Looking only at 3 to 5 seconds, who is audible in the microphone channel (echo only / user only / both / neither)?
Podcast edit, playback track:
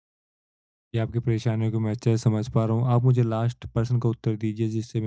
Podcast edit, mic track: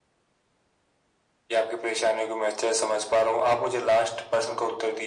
echo only